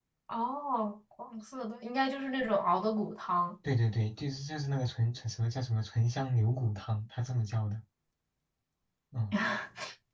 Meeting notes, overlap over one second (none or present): none